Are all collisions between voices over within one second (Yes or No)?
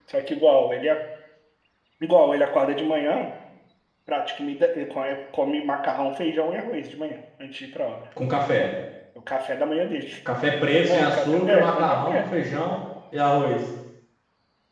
No